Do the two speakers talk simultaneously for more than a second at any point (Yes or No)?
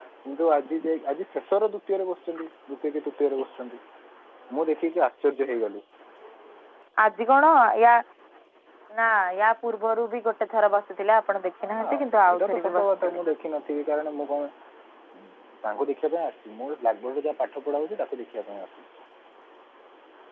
Yes